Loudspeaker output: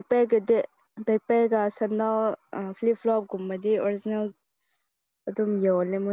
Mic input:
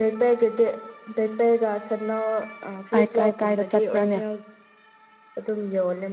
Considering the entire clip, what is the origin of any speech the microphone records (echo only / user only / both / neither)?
both